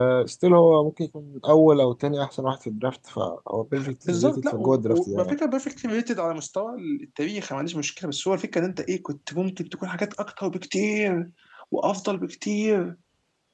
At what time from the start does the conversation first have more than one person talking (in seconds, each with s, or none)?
4.1 s